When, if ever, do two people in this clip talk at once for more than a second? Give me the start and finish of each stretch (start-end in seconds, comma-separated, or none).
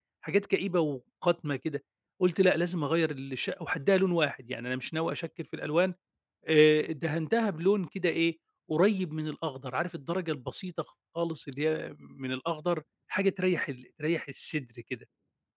none